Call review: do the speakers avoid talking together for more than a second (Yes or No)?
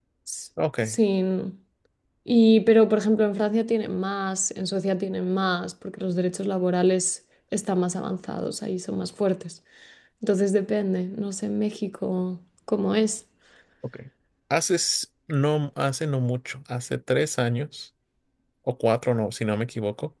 Yes